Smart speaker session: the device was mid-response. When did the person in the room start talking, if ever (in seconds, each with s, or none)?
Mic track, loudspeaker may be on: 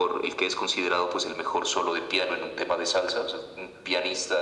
none